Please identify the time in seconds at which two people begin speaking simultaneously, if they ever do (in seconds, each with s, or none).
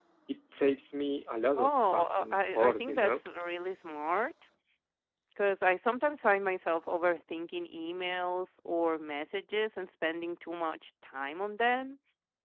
1.6 s